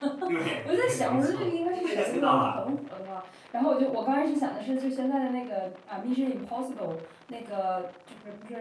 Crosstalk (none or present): present